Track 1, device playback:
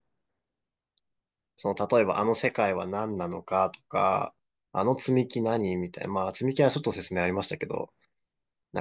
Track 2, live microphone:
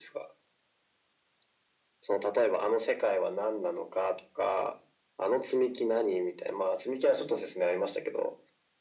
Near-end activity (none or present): none